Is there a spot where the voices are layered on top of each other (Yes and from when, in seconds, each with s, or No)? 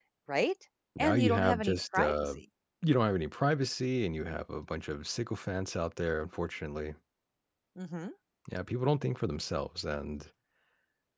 Yes, from 1.0 s